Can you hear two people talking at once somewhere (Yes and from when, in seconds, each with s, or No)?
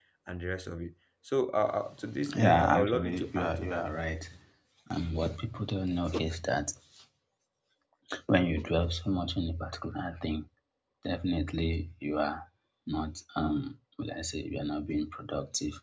Yes, from 2.2 s